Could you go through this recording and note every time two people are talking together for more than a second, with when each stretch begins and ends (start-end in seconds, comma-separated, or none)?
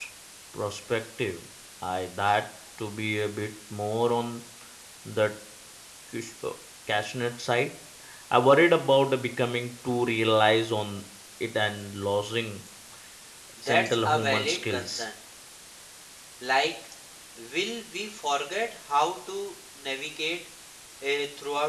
13.7-15.0